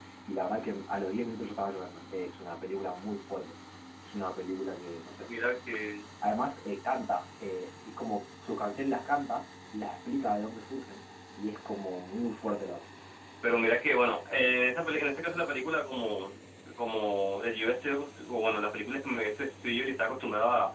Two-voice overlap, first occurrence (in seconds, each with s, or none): none